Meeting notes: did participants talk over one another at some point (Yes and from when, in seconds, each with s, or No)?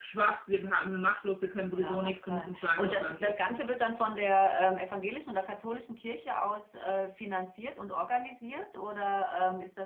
Yes, from 1.7 s